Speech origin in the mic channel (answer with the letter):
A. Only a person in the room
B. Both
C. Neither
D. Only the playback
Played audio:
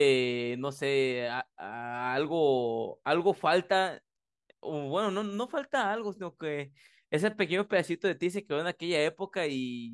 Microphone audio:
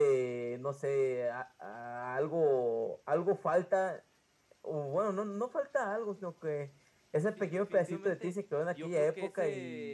B